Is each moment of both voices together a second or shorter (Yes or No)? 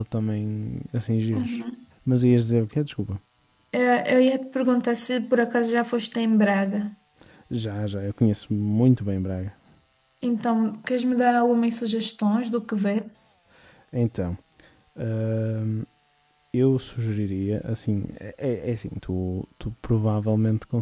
Yes